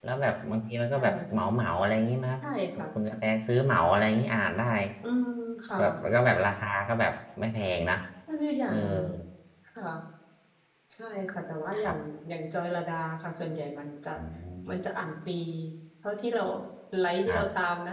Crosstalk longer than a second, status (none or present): none